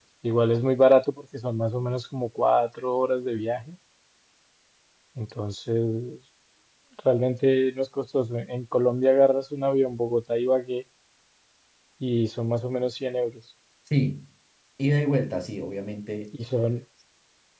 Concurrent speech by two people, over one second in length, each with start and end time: none

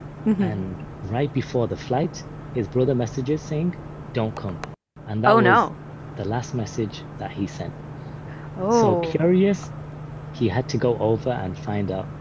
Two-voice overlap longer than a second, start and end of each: none

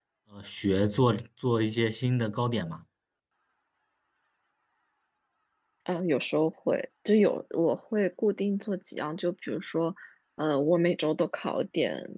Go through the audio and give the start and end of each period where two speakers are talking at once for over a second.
none

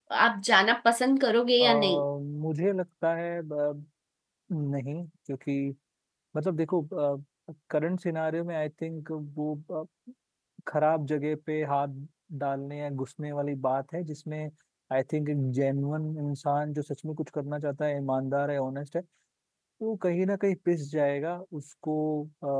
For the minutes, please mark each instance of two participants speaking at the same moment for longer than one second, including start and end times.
none

